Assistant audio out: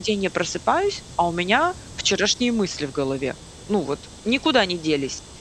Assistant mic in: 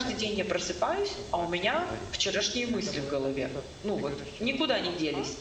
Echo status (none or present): present